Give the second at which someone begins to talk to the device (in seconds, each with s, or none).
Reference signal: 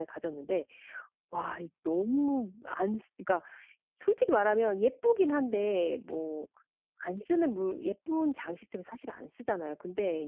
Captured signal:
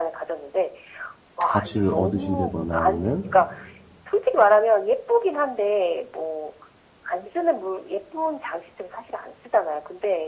1.5 s